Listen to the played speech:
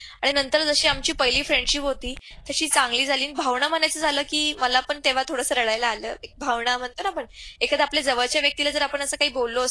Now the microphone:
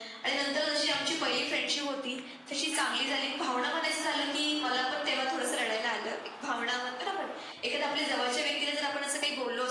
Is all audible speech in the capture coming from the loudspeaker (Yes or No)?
Yes